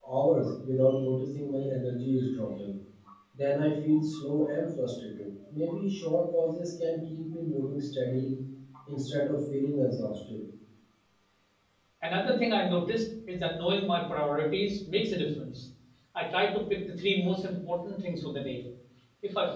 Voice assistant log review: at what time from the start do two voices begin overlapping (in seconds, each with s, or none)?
none